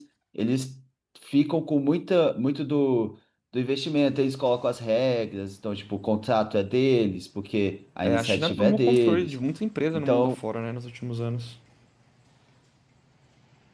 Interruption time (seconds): 8.0 s

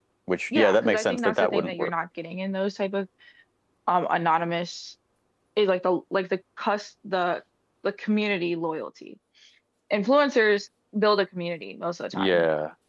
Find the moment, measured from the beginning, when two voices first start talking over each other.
0.5 s

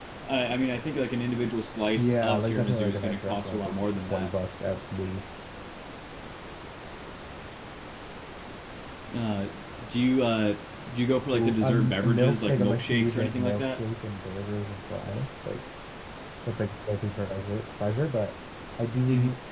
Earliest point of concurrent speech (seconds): 2.0 s

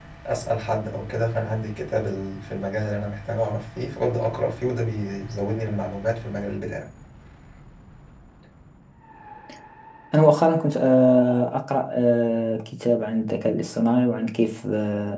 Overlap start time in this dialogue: none

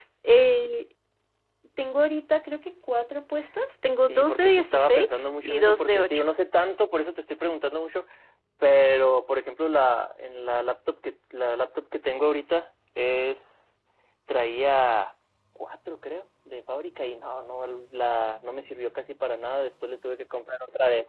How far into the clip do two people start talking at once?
4.1 s

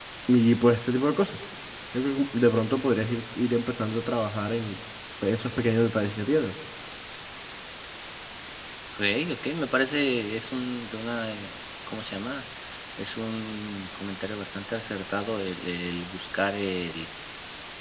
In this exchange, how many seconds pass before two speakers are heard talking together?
none

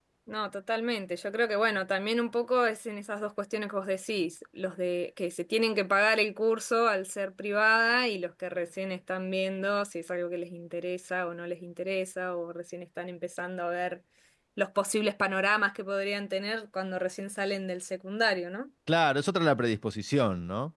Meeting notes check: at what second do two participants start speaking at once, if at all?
none

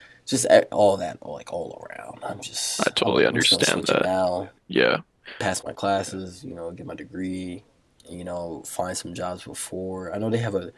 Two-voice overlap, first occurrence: 2.8 s

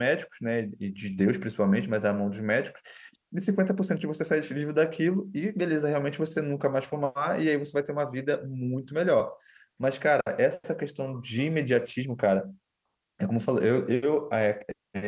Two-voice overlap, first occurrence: none

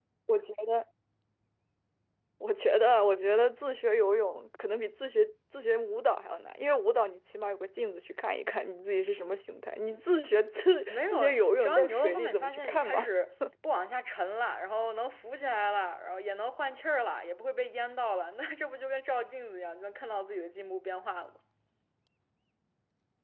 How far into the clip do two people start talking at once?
10.9 s

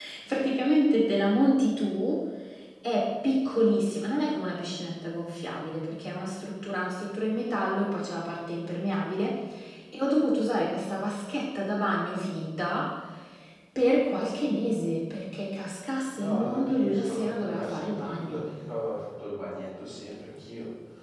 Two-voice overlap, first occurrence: 16.1 s

